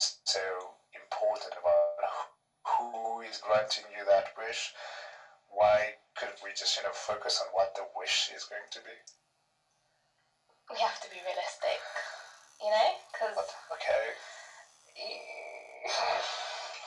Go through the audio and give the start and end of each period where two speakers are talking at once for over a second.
none

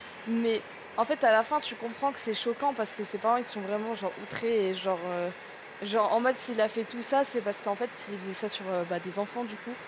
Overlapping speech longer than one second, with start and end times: none

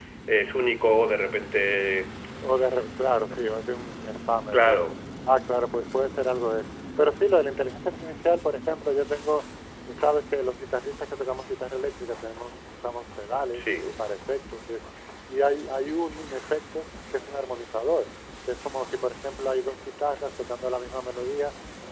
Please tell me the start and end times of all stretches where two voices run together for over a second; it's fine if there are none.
none

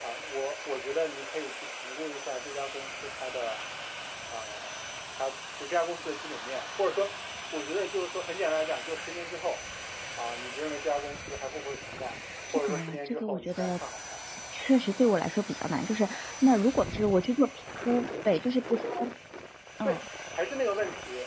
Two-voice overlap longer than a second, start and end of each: 12.5-13.8

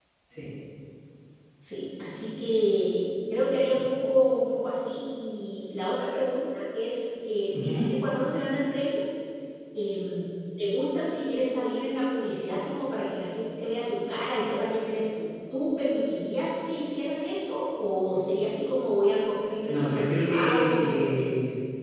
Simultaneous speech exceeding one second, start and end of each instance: 19.7-21.2

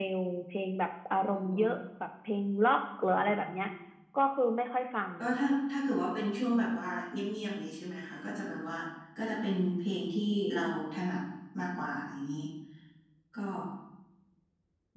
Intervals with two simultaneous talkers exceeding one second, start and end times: none

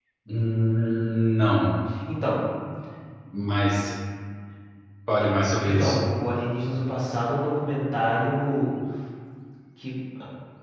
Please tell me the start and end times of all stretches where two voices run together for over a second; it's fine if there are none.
none

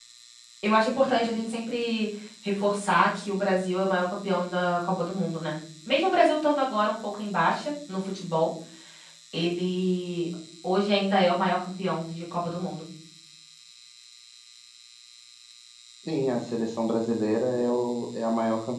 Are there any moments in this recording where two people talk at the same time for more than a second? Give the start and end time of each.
none

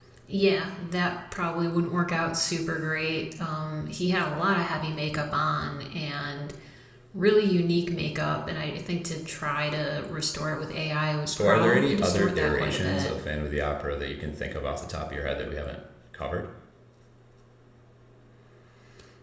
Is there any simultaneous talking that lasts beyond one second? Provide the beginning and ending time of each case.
11.3-13.1

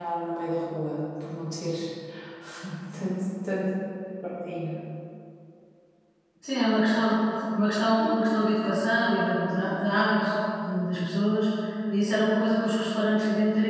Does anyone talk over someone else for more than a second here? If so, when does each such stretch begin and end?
none

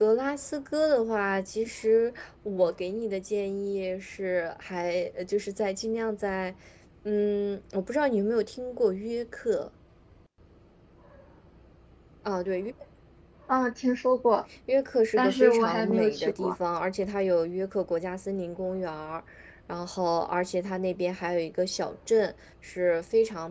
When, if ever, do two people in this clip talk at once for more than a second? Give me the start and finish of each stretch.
15.2-16.6

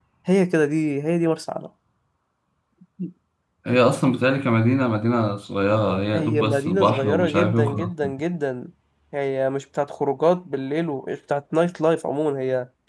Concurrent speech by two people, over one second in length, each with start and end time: 6.2-7.9

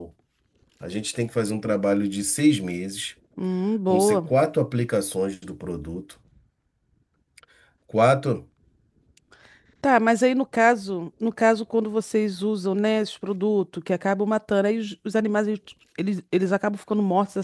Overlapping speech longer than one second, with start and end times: none

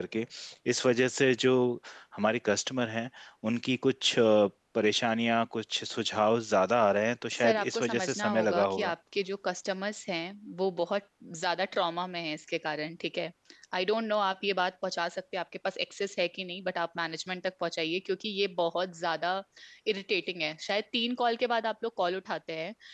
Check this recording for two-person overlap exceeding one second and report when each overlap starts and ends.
7.3-8.9

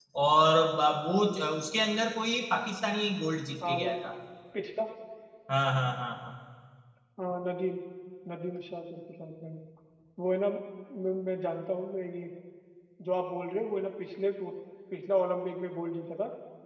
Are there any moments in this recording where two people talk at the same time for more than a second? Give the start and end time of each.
none

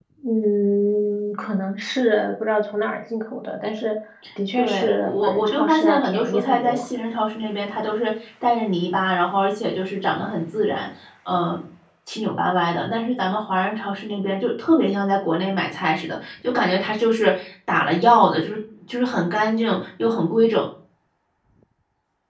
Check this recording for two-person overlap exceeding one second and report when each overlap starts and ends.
4.6-6.9

